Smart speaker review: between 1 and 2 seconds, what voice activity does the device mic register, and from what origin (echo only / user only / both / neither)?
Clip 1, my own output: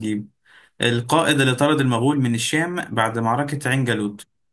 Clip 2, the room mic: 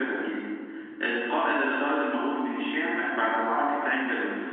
echo only